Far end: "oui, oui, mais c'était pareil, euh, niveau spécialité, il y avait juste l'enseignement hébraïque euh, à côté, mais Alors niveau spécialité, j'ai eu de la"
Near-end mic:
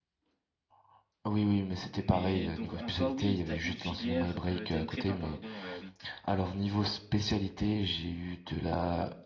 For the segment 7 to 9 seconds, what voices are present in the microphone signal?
echo only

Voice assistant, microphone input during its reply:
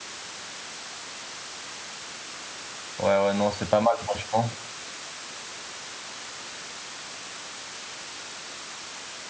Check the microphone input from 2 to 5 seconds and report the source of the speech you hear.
user only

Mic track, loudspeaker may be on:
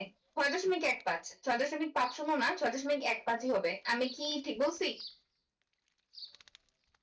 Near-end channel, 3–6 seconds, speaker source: echo only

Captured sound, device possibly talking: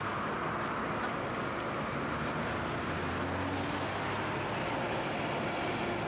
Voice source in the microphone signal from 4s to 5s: neither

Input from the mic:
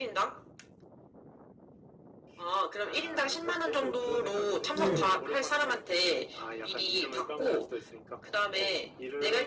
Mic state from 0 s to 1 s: echo only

